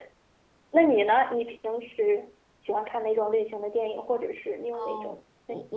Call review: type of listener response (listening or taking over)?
taking over